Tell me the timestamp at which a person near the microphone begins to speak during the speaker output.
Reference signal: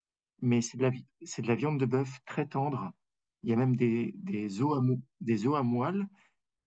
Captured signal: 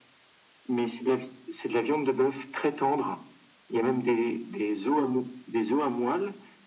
none

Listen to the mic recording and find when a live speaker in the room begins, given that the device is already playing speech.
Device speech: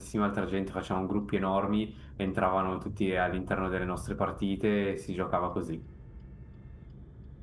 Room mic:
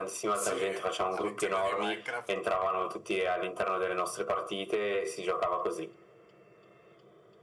0.3 s

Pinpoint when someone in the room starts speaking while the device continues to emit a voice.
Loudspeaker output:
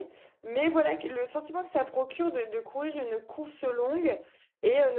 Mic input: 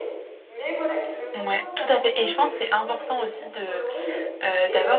1.3 s

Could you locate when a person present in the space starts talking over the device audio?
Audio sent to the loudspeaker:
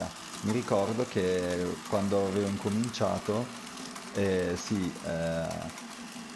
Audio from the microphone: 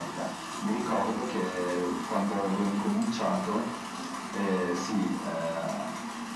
none

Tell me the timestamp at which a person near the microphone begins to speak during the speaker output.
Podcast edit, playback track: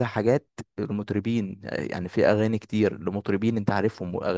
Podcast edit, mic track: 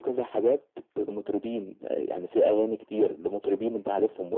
none

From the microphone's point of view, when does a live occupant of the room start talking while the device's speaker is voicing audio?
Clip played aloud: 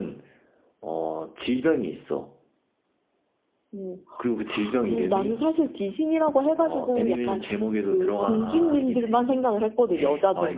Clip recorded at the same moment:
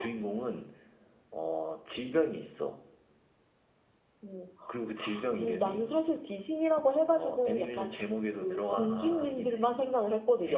none

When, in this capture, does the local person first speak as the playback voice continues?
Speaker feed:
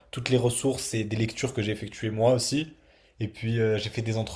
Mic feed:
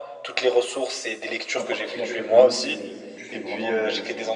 1.4 s

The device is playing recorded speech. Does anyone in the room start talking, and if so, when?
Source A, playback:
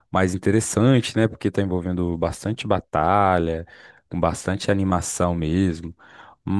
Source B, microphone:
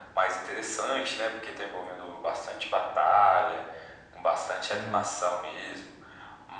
4.7 s

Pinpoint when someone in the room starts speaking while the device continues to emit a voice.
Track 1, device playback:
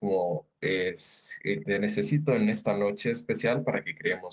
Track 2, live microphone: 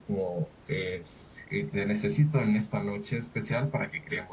none

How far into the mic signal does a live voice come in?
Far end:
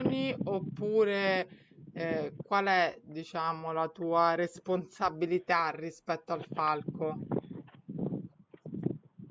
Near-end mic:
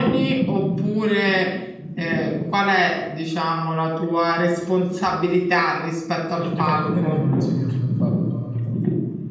6.4 s

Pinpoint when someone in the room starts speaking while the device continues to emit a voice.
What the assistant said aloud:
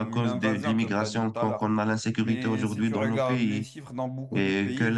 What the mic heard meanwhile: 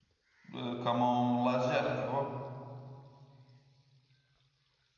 0.5 s

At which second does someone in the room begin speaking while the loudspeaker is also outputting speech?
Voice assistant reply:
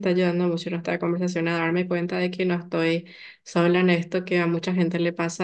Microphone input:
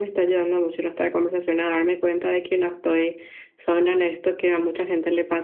none

